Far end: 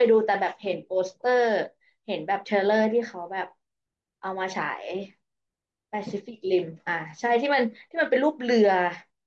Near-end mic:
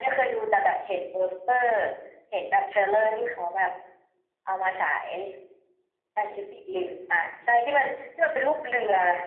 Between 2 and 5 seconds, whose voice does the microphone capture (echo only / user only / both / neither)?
echo only